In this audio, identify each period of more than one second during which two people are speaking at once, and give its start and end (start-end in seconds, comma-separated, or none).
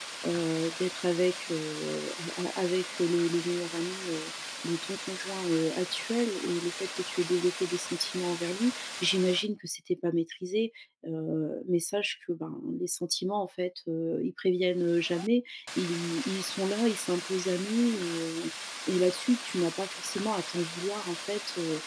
none